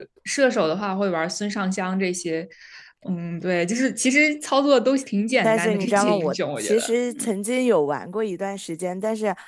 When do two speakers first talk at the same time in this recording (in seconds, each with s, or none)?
5.4 s